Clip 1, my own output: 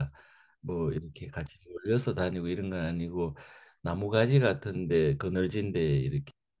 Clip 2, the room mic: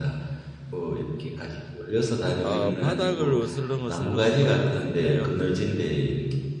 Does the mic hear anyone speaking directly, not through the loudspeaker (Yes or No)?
Yes